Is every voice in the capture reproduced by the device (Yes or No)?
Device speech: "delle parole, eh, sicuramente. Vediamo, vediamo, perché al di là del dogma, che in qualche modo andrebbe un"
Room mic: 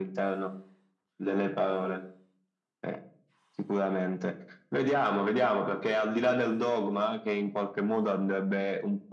Yes